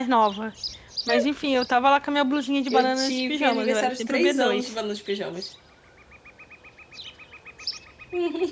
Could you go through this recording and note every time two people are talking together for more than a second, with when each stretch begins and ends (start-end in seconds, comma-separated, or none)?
2.7-4.7